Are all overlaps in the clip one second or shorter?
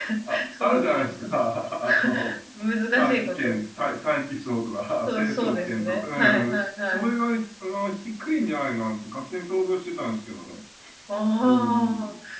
No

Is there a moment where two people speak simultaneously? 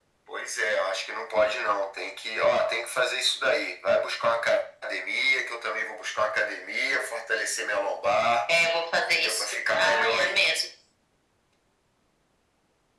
Yes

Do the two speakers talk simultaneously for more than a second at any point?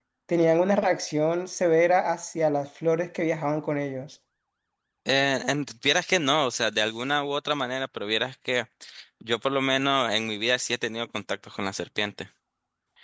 No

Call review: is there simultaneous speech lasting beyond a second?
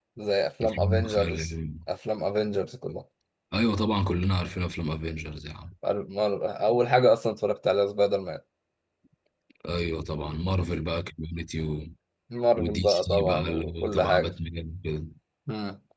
Yes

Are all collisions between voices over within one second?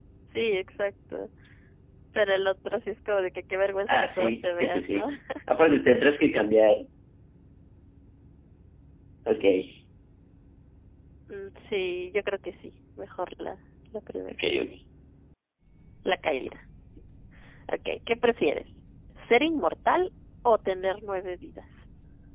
No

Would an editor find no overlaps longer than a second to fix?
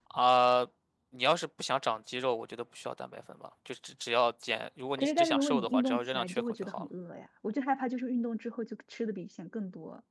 No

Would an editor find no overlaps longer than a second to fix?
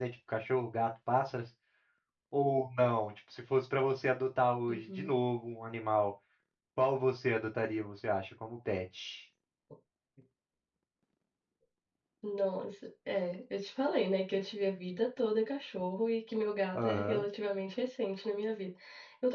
Yes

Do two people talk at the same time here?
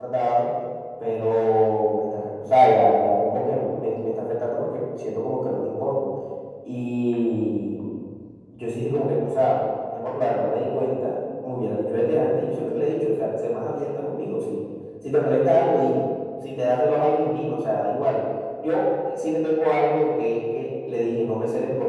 No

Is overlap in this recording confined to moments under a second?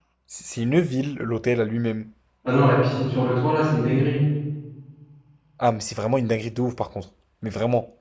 Yes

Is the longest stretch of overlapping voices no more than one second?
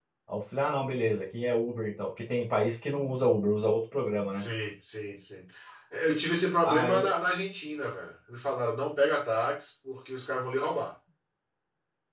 Yes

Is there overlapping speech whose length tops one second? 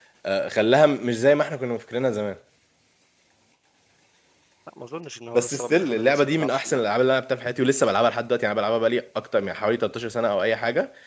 Yes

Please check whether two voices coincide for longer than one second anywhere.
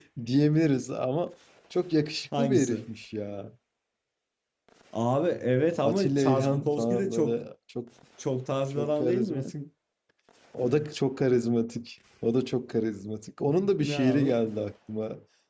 Yes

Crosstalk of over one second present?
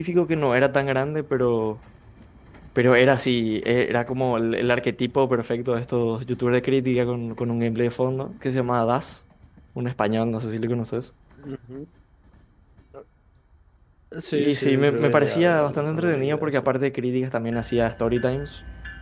Yes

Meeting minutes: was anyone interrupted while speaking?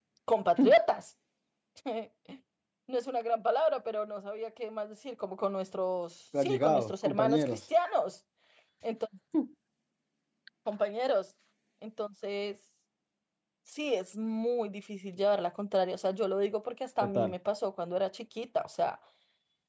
Yes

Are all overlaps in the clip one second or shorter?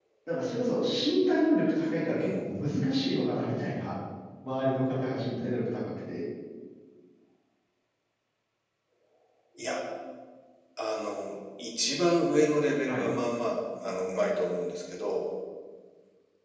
Yes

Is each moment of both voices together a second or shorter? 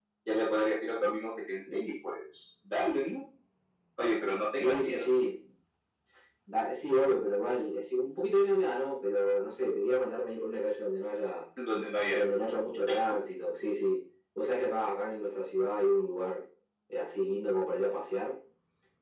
Yes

